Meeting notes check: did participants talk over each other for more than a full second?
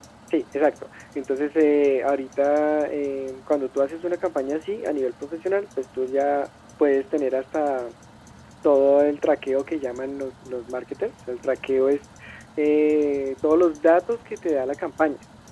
No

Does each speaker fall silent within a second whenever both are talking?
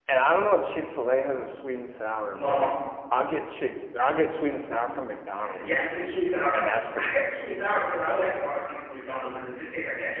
Yes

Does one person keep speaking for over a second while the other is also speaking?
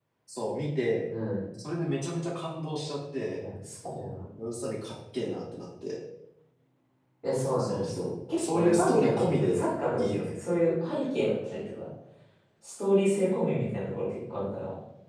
Yes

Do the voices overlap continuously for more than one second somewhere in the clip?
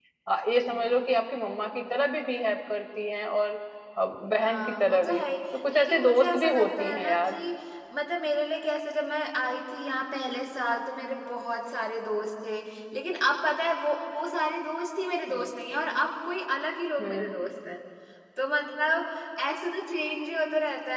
Yes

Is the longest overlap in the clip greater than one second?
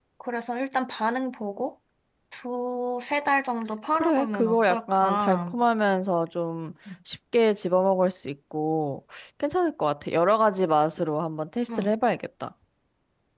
Yes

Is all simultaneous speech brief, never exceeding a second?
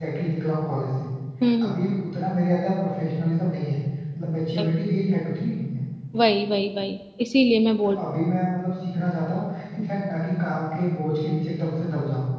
Yes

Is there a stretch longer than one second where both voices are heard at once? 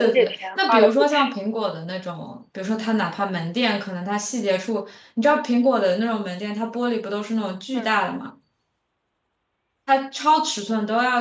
Yes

